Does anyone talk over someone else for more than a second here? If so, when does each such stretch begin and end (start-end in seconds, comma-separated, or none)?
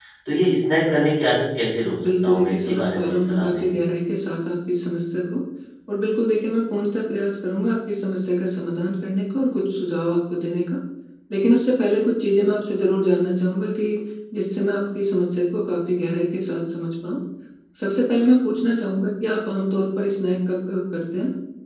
2.0-3.7